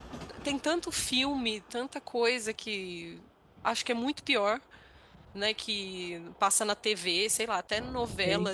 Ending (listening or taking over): listening